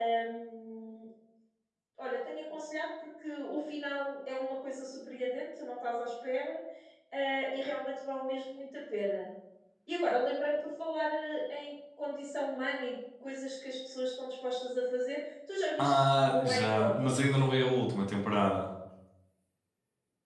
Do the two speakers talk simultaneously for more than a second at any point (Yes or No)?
Yes